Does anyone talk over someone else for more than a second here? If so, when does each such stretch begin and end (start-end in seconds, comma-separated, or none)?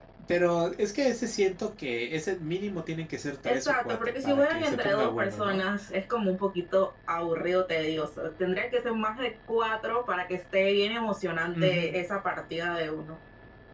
3.4-5.6